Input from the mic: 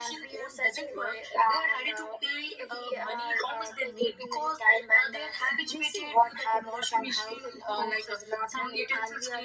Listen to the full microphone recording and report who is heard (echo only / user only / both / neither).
echo only